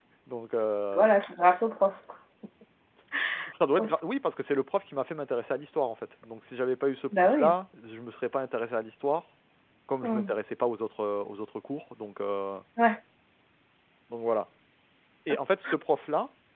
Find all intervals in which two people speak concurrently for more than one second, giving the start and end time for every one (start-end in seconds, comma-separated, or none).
none